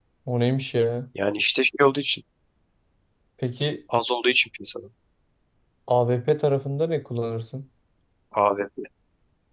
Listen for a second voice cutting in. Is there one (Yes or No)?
No